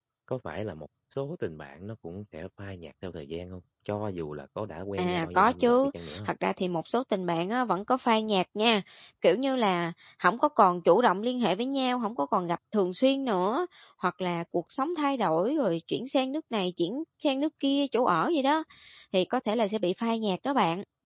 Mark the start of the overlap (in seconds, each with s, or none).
5.0 s